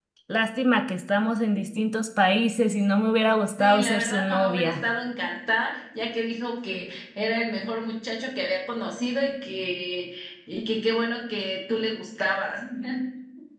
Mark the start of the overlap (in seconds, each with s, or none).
3.6 s